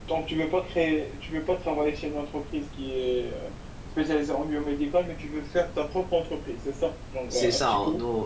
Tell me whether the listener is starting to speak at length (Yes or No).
Yes